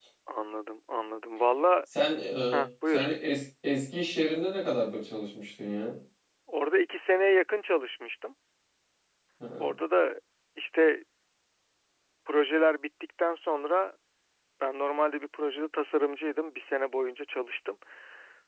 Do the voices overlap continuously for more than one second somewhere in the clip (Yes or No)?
No